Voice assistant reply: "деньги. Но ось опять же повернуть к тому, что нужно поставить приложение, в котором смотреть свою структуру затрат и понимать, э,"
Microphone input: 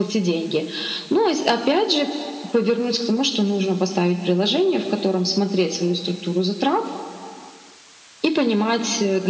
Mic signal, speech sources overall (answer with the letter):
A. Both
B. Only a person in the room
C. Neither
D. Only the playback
D